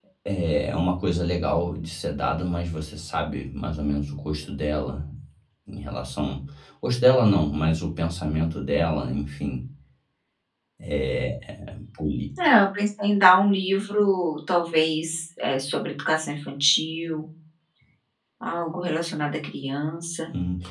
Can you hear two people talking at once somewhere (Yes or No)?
No